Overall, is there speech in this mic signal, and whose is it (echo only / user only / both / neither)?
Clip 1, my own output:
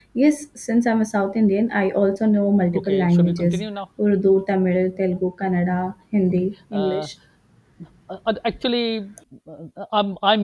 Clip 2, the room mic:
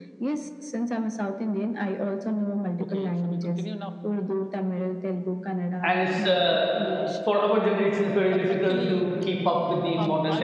both